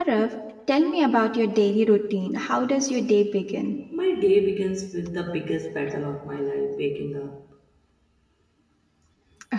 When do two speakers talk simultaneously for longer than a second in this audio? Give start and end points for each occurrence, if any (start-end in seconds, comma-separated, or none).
none